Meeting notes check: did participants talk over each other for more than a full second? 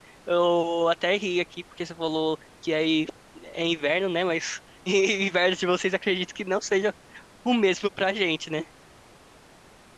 No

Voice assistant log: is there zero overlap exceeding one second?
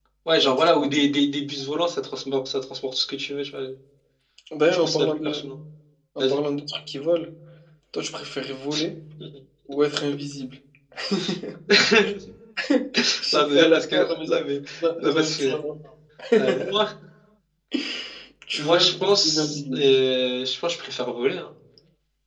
No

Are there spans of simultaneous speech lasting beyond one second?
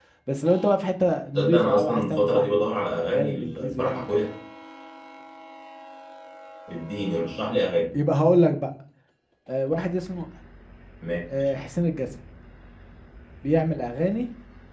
Yes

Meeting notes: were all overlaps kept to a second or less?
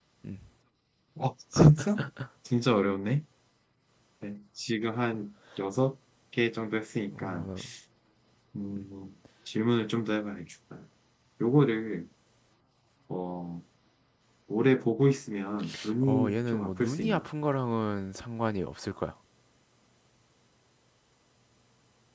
No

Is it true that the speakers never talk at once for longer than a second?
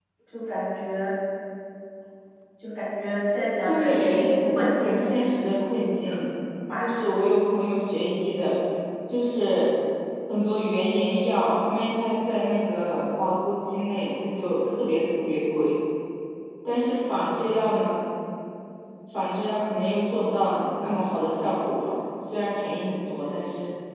No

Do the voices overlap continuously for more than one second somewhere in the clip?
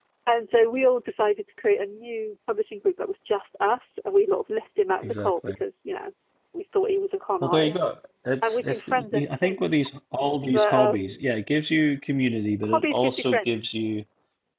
Yes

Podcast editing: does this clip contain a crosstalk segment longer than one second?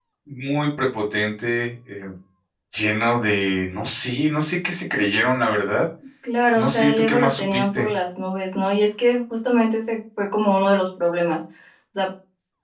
Yes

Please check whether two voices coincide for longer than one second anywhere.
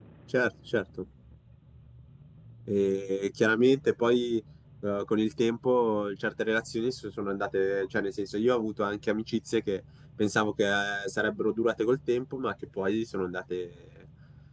No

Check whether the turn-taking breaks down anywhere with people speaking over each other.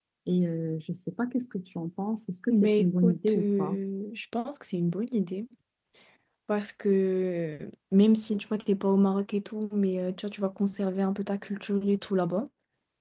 Yes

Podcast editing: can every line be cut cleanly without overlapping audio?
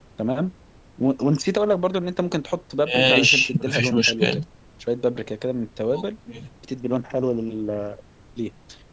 No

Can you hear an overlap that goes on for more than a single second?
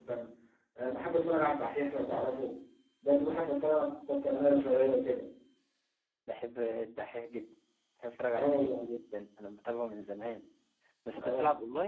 Yes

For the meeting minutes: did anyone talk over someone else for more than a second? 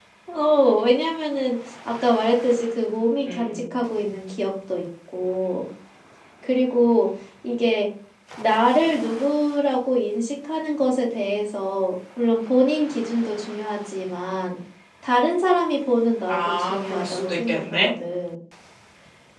Yes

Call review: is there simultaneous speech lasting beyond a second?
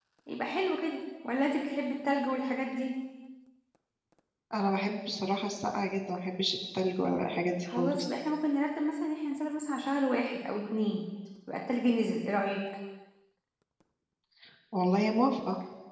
No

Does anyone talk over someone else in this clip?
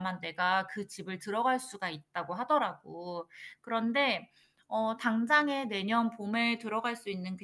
No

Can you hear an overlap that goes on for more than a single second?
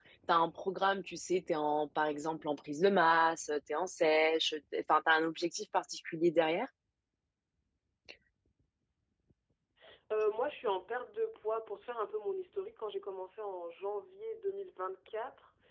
No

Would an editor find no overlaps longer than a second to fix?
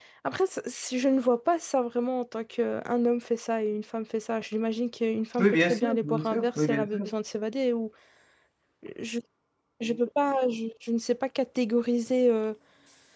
No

